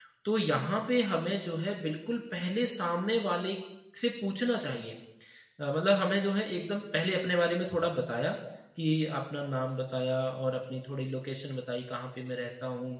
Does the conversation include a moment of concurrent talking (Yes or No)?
No